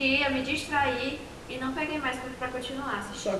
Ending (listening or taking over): taking over